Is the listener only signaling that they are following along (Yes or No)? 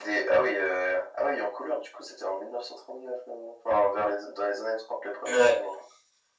Yes